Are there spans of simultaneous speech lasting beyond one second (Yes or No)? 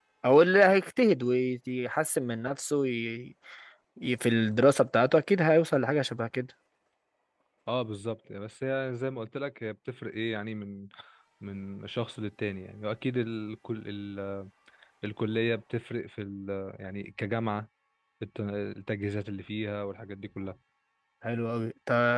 No